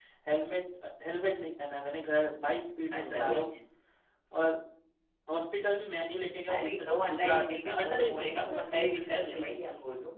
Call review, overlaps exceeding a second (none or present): present